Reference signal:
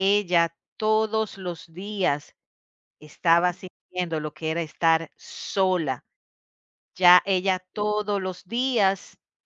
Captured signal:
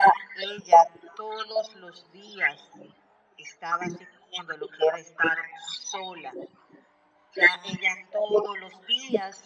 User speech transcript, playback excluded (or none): none